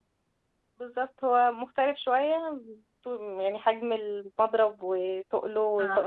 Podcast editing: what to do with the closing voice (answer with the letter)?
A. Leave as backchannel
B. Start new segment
B